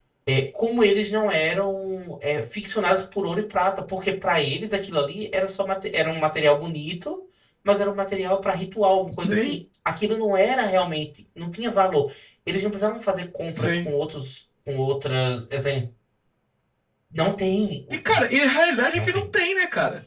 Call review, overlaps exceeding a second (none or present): none